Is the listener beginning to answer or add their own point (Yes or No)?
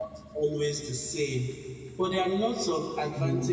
No